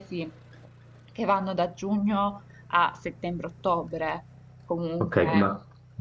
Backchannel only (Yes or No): No